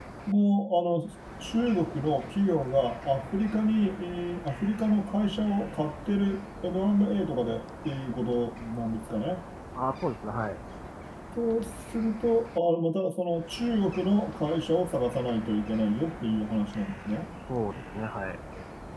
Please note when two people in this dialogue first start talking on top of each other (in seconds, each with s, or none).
none